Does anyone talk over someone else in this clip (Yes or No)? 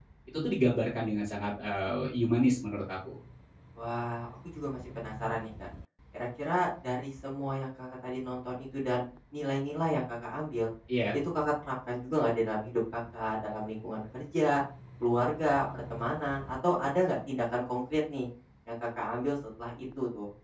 No